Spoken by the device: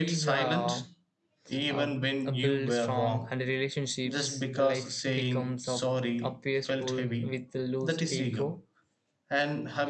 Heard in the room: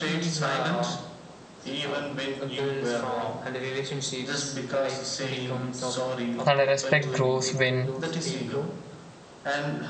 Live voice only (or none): and respect grows when